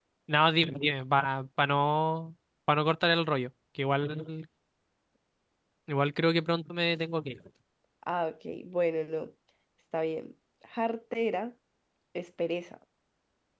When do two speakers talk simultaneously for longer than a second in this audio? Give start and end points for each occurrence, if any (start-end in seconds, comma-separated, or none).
none